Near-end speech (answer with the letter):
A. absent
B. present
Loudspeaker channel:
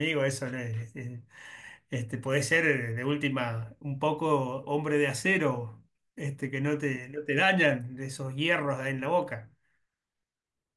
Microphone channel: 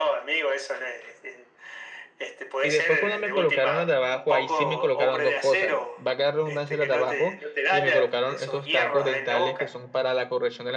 B